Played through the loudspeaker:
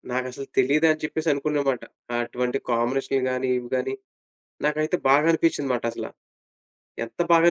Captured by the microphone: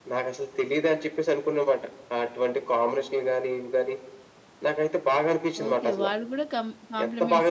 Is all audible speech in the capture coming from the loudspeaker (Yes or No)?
No